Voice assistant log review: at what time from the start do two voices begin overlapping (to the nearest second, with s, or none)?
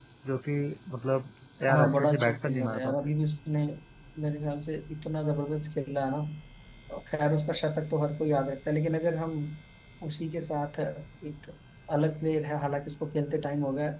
2 s